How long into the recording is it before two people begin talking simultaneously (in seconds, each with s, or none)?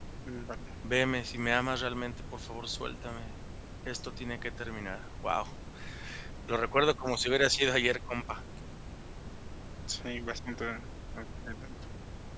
none